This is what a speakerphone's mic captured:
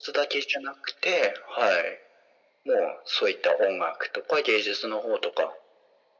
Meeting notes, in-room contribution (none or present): none